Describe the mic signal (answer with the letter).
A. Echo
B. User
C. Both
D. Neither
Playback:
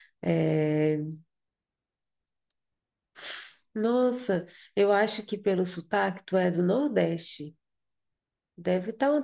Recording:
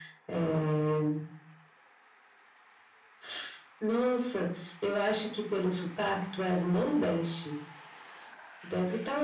A